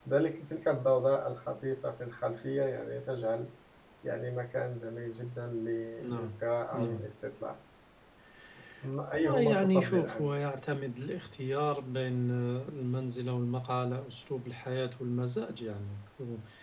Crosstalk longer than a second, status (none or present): present